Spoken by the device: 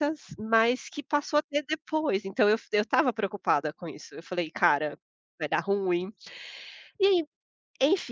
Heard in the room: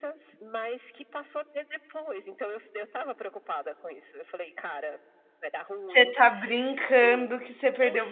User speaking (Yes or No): Yes